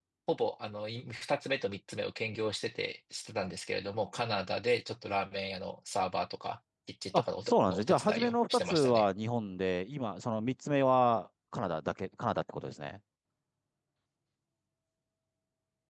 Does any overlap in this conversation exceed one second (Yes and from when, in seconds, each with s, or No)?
Yes, from 7.1 s